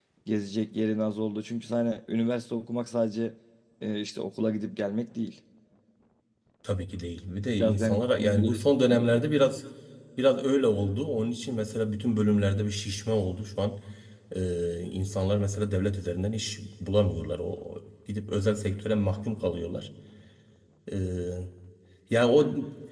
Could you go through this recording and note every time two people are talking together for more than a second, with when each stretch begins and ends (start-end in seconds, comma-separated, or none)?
7.6-9.2